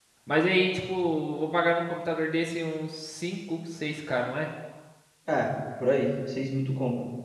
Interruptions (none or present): none